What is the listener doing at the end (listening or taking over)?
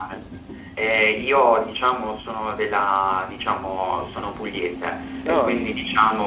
listening